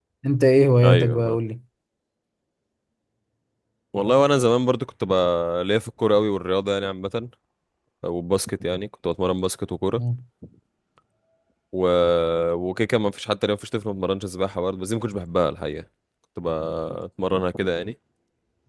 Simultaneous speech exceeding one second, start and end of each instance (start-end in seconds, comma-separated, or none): none